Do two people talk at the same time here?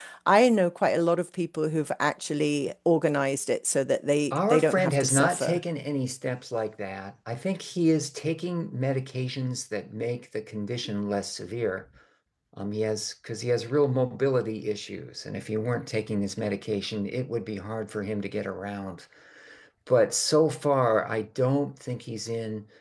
Yes, from 4.3 s

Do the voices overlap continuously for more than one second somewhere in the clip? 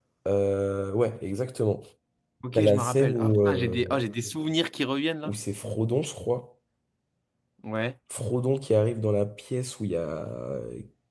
Yes, from 2.5 s

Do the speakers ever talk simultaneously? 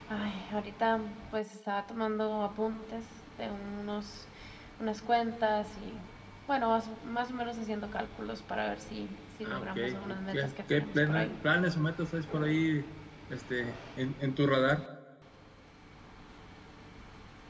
Yes, from 9.4 s

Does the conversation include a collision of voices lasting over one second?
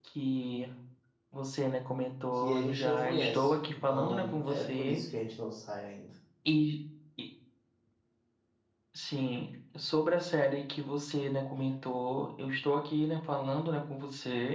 Yes, from 2.4 s

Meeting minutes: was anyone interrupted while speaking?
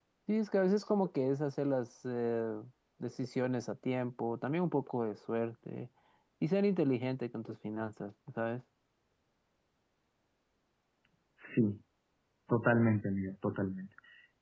No

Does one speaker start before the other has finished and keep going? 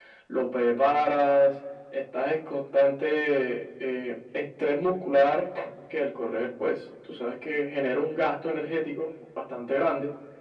No

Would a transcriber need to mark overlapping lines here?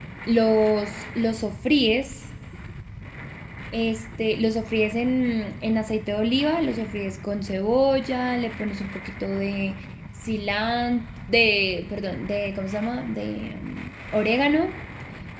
No

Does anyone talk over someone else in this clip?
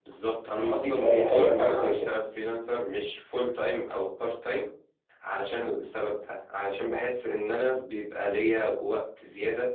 Yes, from 0.6 s

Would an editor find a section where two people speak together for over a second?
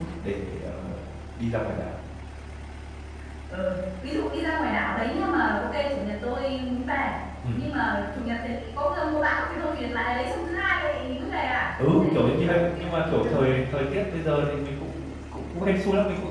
Yes, from 11.8 s

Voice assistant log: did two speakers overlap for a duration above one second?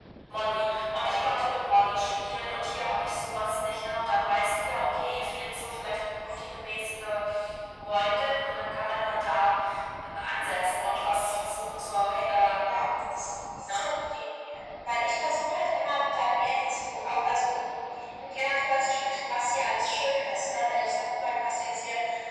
No

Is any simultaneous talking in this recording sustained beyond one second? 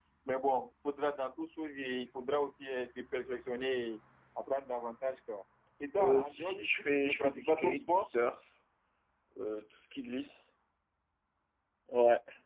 Yes, from 6.0 s

